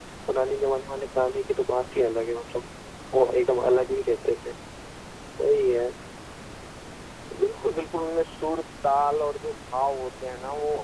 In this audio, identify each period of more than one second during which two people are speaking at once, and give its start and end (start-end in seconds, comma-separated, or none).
none